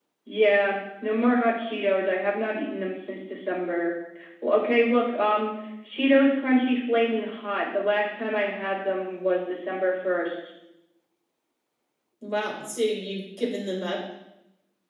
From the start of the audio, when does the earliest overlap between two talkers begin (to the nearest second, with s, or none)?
none